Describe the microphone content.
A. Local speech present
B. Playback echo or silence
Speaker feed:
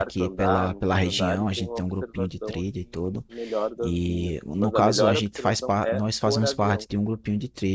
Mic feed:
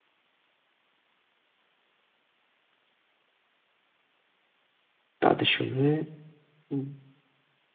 A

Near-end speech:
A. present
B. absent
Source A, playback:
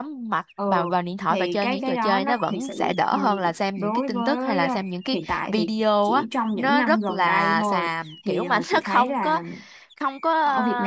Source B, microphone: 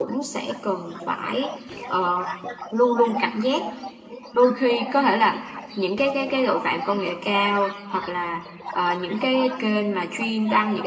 A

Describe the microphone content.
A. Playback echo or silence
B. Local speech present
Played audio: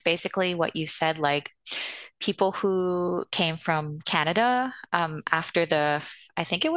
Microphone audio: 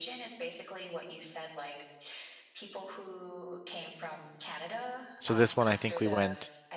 B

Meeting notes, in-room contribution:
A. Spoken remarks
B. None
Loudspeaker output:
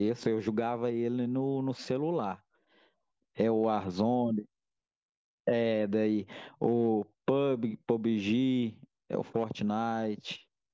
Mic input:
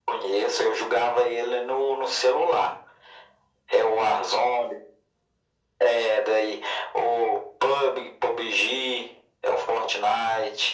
B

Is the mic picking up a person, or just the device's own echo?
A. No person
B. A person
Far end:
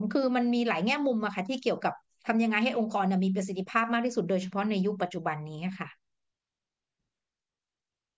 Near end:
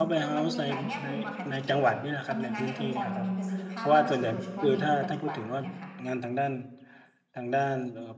B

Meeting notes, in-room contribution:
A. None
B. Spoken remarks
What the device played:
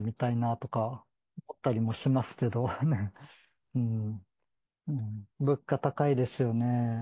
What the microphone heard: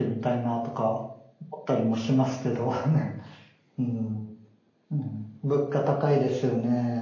A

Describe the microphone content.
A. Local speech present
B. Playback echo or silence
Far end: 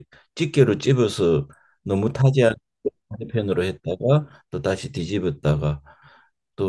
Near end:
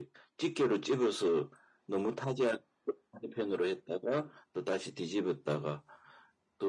B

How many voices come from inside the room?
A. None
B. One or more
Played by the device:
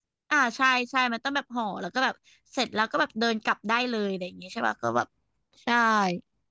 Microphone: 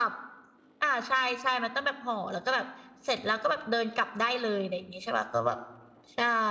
A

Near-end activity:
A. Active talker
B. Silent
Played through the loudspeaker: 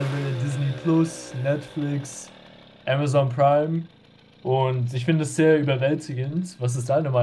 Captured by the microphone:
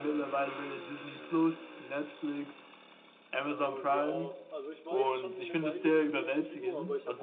A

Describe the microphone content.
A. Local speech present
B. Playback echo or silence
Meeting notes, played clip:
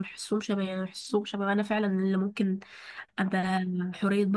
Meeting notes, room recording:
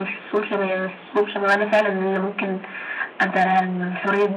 B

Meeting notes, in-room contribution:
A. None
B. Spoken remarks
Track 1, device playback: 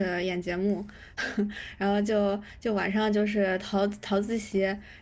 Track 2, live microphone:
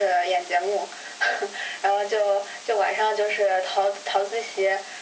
A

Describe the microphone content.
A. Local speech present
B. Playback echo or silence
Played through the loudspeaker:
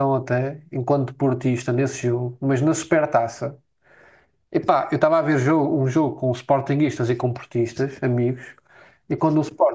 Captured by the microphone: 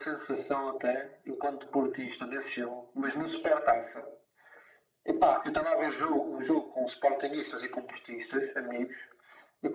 B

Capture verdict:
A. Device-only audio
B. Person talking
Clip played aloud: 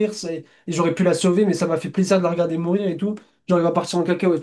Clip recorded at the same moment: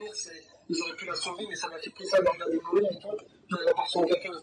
A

